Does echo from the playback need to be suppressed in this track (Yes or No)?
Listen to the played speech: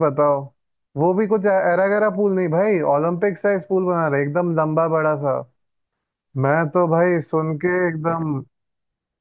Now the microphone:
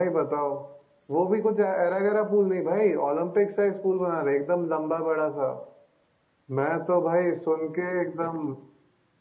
Yes